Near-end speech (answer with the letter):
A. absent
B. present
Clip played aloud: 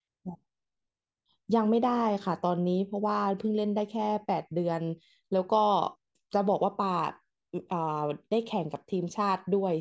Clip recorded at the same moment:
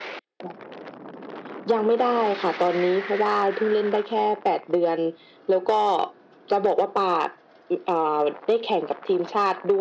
A